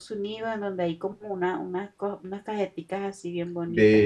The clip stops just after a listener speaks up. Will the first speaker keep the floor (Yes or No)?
No